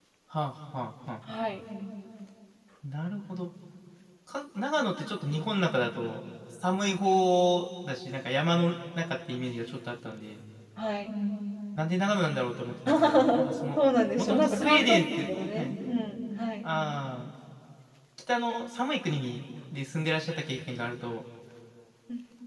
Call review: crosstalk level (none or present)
present